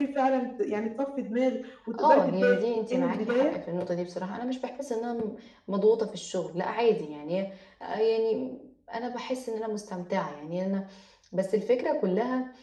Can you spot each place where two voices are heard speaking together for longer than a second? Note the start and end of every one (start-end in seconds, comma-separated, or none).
2.0-3.5